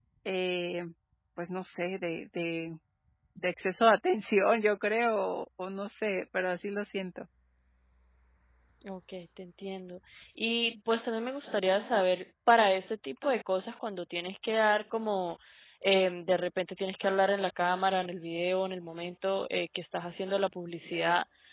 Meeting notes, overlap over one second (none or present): none